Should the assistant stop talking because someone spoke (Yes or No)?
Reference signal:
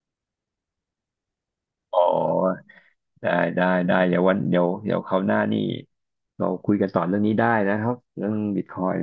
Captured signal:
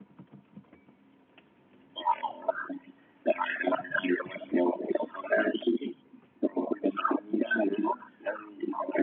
No